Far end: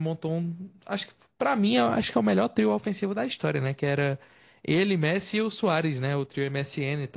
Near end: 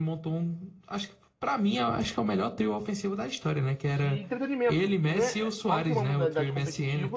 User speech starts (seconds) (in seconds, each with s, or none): 3.8 s